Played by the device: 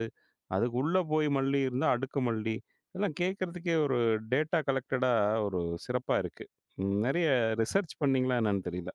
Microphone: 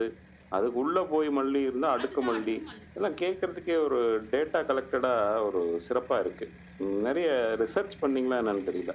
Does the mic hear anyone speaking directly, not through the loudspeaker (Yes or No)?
Yes